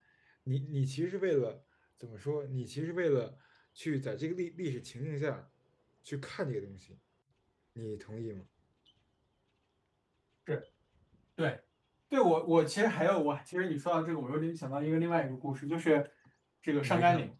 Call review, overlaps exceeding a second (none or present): none